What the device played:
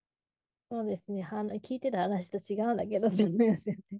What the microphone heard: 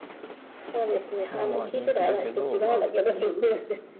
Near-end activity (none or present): present